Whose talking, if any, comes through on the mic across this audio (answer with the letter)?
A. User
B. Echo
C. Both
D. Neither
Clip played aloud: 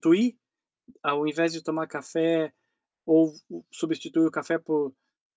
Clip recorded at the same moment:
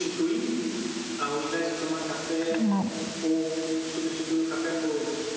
C